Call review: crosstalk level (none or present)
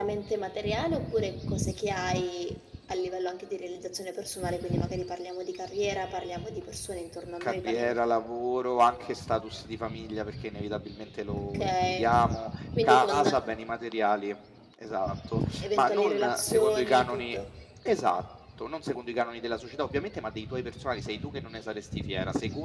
present